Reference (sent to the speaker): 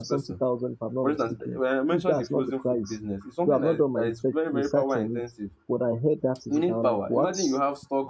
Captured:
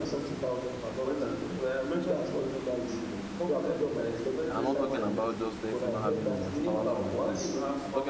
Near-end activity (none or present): present